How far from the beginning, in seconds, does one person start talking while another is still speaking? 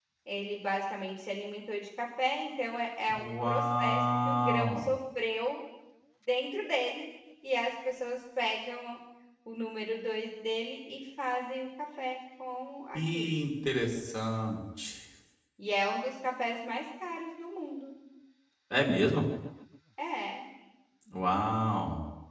3 s

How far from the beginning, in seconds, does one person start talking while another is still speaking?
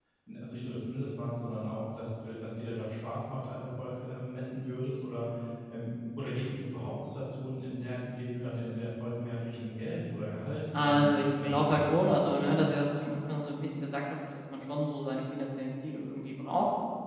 11 s

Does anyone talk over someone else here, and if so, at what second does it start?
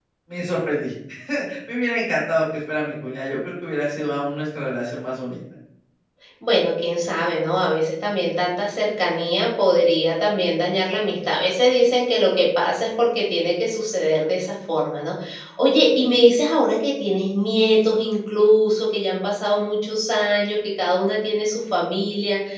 none

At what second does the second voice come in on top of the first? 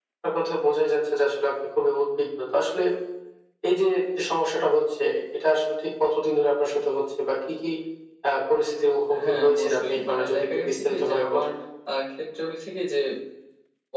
9 s

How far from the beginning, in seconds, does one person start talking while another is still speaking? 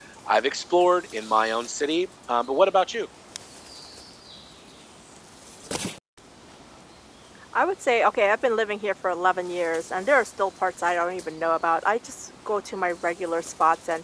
none

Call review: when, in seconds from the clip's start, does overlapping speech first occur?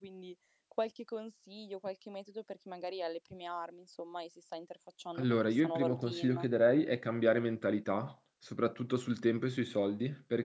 5 s

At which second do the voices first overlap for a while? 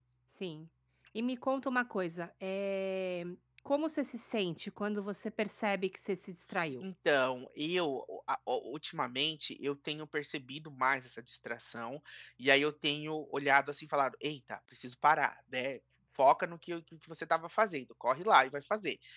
none

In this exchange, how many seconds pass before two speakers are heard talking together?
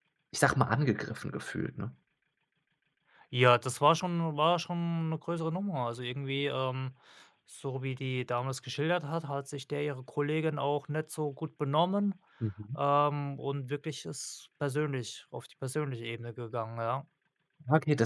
none

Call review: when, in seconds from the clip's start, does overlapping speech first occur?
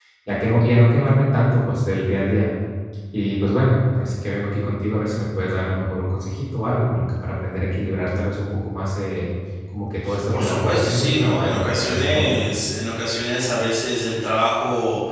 10 s

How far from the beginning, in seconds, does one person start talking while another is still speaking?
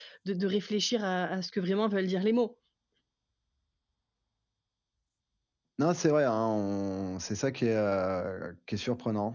none

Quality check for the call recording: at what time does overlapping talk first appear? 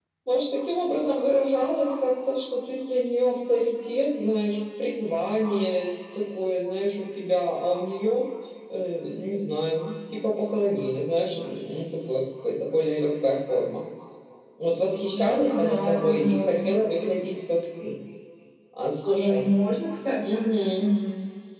15 s

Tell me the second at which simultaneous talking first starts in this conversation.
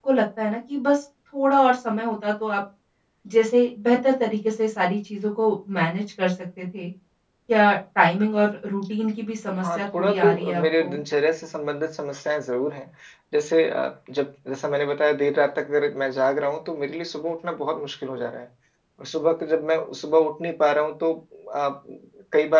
10 s

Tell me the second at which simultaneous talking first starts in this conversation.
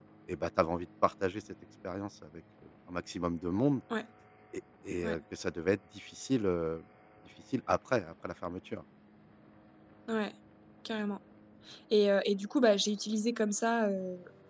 none

